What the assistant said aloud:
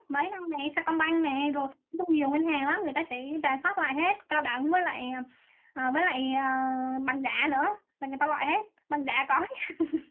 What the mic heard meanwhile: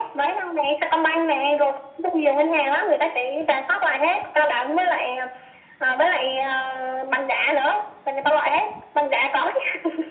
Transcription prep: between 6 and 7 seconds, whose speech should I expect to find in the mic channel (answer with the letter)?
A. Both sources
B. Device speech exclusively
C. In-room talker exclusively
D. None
B